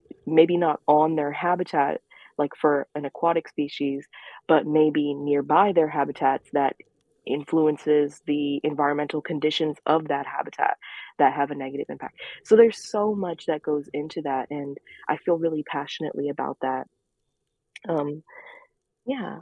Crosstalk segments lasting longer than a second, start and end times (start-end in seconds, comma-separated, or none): none